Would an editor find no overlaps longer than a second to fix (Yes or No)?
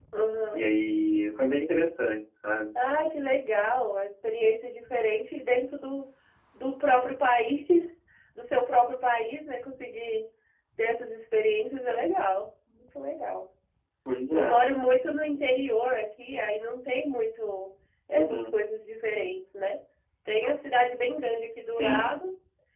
Yes